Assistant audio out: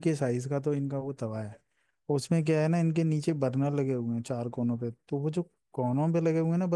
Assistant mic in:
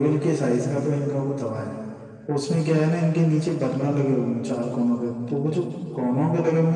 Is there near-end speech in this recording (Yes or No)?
No